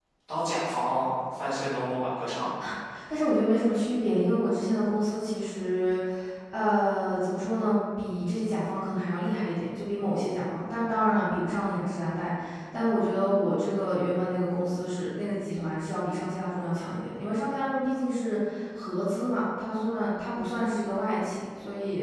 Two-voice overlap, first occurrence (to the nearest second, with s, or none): none